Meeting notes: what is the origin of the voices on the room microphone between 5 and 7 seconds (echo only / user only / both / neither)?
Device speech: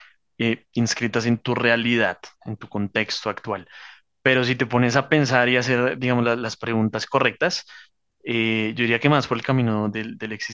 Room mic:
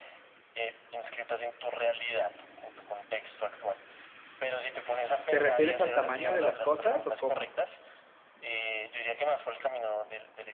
both